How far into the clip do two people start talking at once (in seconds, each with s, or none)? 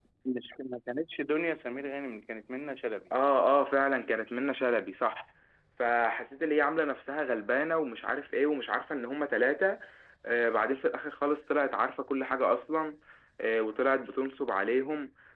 none